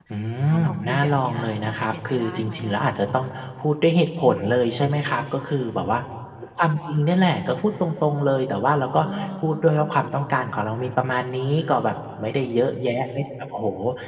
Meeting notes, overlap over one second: present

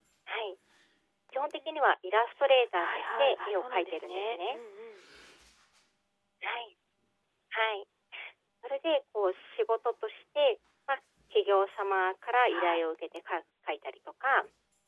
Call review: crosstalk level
present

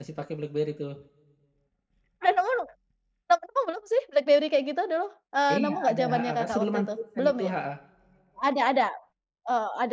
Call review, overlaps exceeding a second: present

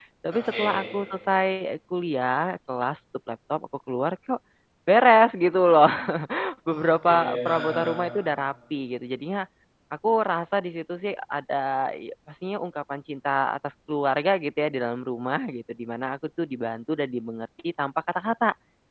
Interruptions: present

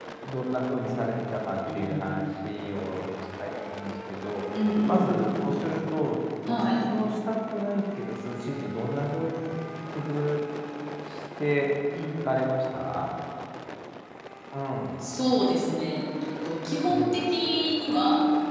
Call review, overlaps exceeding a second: none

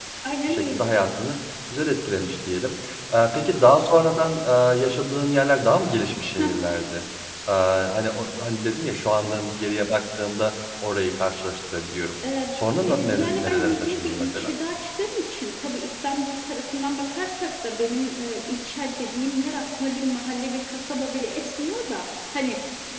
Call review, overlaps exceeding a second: present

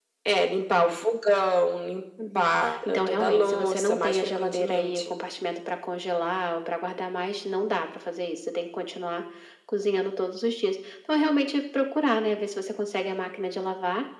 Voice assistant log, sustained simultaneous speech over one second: present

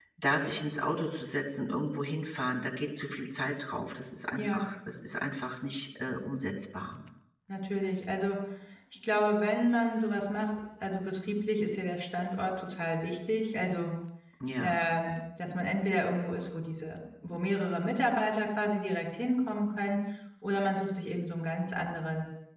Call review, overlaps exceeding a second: none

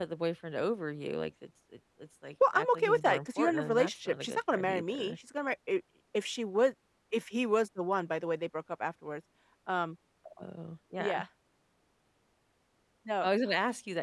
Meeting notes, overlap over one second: present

